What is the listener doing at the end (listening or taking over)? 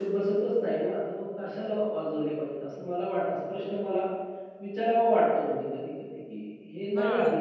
listening